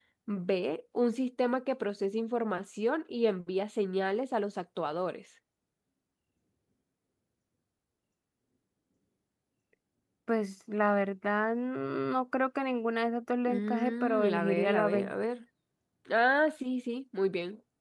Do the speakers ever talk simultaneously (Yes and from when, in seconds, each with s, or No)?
Yes, from 13.5 s